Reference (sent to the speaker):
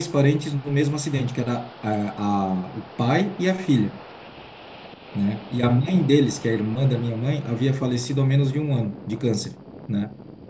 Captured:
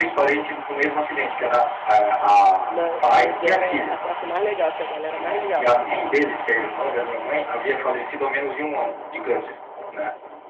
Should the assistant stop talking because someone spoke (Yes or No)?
Yes